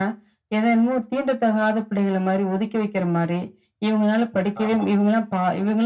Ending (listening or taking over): listening